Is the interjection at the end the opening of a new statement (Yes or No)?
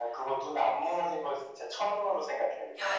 Yes